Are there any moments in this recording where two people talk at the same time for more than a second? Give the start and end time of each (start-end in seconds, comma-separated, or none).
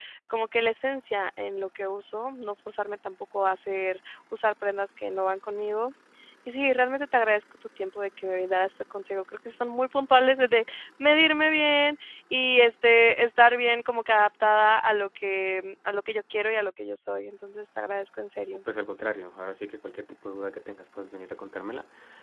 none